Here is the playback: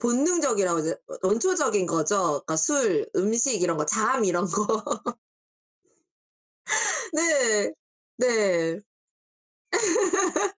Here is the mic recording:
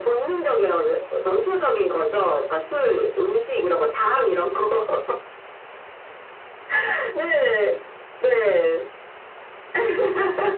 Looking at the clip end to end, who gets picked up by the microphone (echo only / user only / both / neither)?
echo only